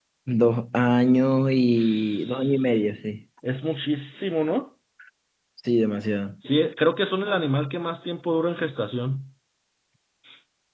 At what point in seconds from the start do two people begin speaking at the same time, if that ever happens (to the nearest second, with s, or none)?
2 s